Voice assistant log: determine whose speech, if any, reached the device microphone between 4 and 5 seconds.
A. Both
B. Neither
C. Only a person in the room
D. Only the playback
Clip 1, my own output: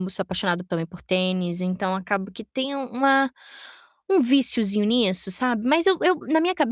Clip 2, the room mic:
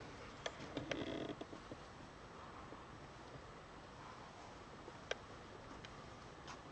B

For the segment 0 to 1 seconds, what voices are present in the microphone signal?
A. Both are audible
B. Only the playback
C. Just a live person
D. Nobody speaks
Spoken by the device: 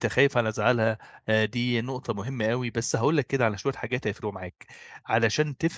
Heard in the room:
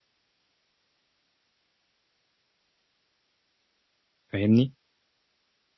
D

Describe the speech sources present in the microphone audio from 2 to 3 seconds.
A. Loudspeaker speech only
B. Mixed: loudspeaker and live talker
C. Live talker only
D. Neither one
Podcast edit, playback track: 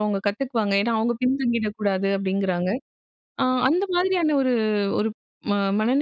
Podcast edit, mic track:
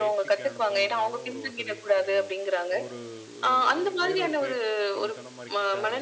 B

